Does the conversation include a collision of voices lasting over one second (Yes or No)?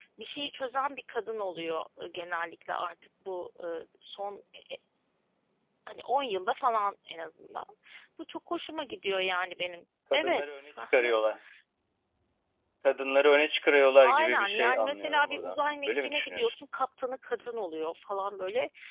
Yes